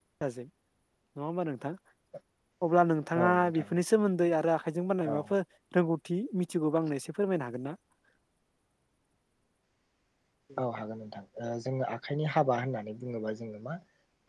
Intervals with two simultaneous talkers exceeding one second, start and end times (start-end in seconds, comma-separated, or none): none